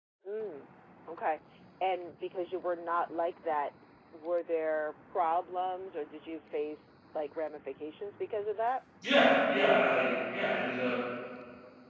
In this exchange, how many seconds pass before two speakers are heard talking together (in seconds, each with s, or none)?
none